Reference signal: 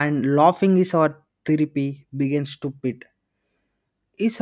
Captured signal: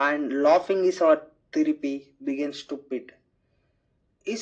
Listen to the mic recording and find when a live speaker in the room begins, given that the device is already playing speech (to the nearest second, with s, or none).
none